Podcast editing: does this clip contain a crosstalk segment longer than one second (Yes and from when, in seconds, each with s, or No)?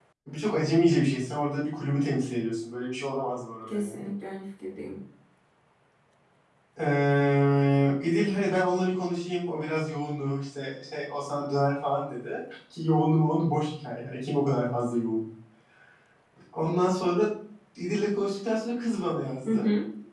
No